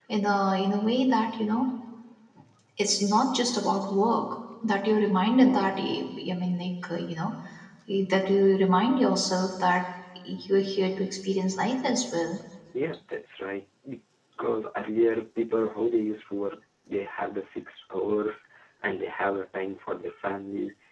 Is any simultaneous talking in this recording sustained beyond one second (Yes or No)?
No